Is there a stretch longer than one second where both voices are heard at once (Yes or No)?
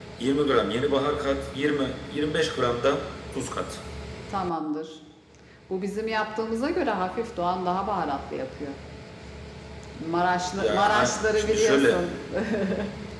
Yes